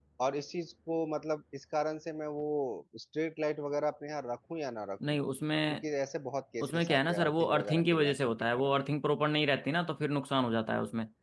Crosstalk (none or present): present